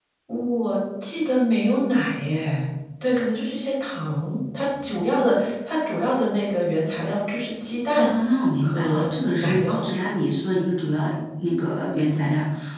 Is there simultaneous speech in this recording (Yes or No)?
Yes